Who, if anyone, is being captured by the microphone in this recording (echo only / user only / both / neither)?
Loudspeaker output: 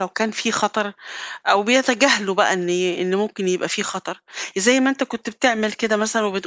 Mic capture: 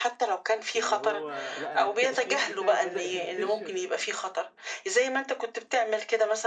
both